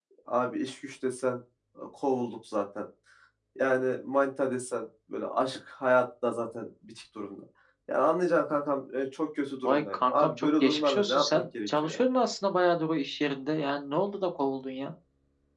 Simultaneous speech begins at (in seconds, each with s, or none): 9.6 s